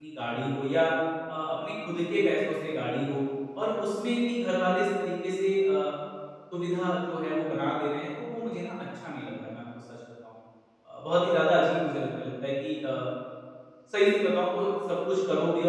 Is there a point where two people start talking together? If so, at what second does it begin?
none

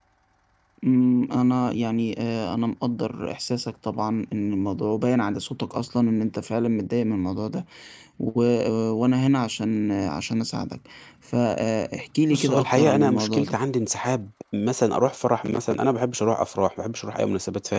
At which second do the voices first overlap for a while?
12 s

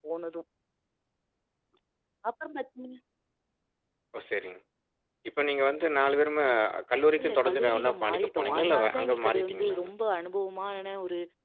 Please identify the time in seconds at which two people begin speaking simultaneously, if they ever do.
7 s

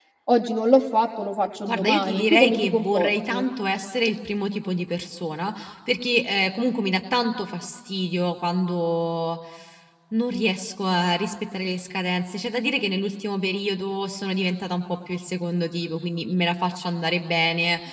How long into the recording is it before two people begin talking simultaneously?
2 s

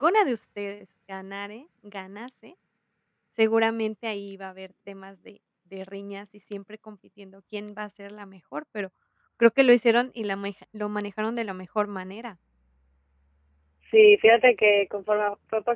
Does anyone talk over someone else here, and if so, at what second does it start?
none

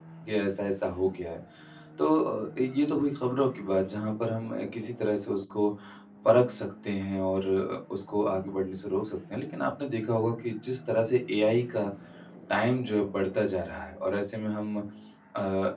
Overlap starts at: none

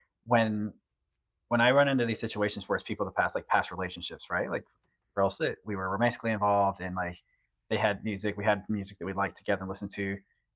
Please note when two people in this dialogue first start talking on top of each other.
none

